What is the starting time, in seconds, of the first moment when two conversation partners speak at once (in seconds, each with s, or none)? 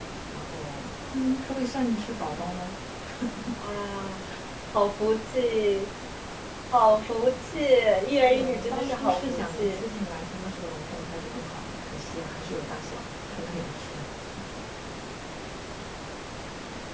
8.2 s